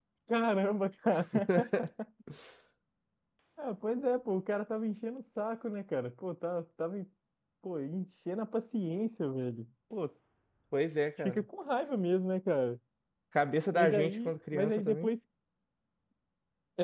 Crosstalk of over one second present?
Yes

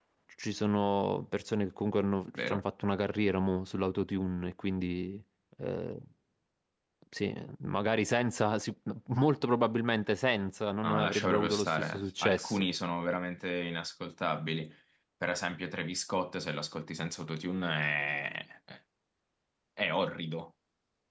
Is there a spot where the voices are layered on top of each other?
Yes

